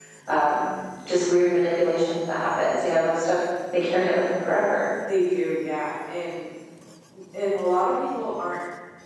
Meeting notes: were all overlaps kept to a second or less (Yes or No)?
Yes